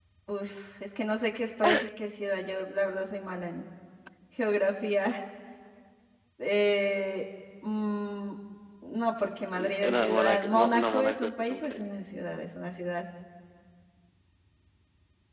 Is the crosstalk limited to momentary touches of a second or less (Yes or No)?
No